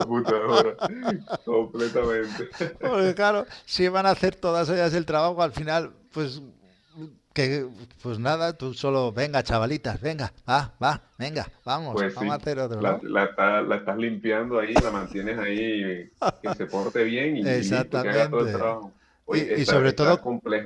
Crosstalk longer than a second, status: present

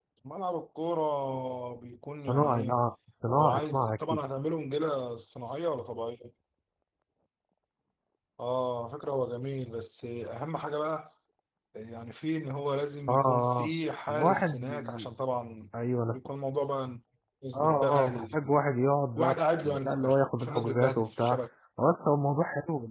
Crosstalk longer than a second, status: present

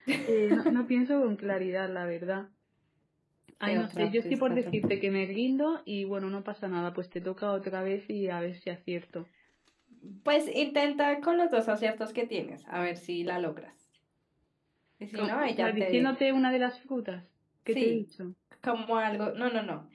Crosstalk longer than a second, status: present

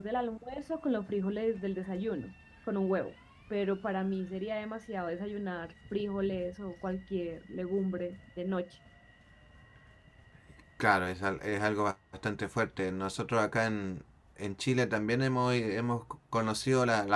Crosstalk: none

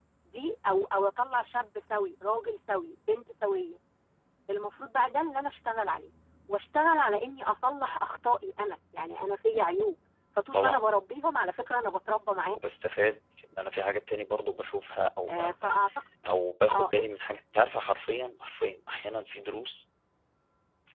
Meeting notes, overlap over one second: none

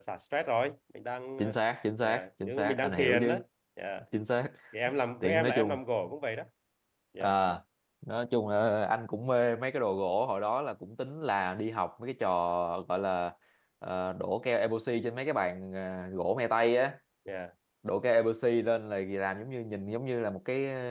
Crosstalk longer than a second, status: present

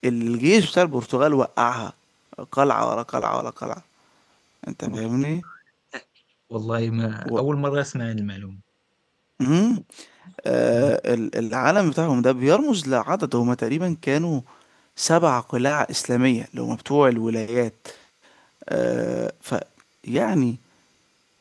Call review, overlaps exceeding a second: none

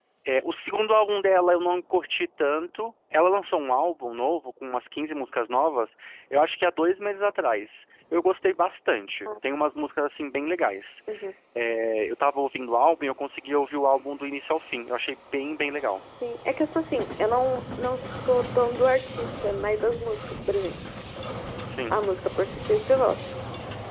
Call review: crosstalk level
none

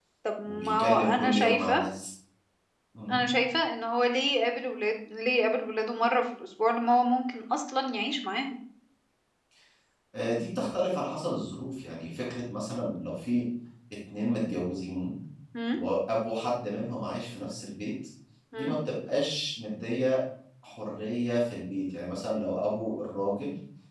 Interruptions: present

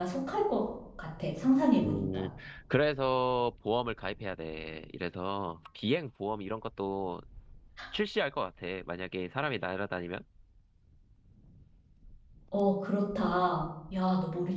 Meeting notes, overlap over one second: none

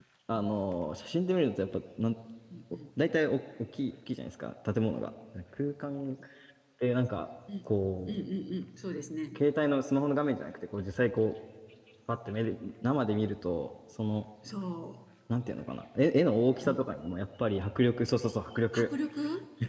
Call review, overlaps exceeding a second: none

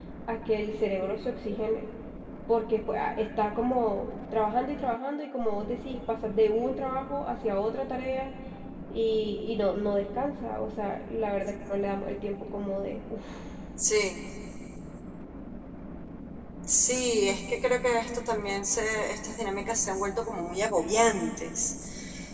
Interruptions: none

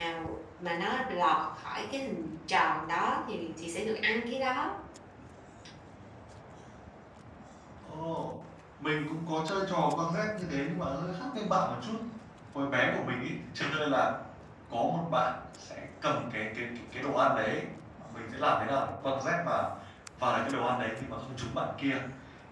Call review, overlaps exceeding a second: none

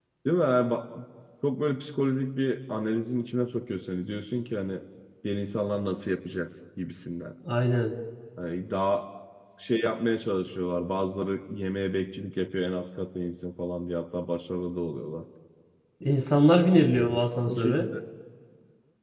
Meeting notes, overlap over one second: none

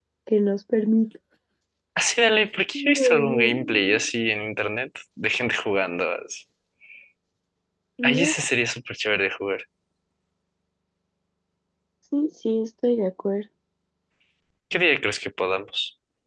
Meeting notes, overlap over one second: present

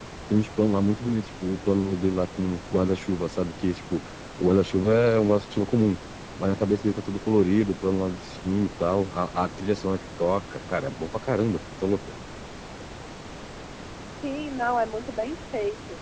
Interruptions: none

